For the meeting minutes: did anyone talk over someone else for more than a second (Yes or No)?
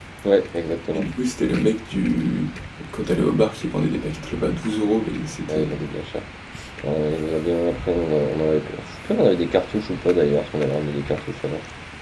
No